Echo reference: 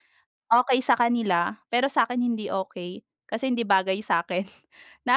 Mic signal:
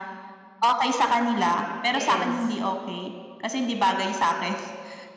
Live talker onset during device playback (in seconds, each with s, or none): 1.9 s